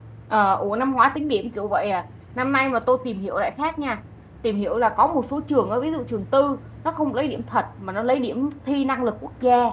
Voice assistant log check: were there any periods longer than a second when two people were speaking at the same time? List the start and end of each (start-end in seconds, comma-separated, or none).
none